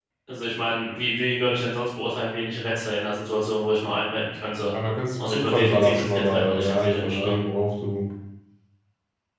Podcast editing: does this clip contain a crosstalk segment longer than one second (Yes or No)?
Yes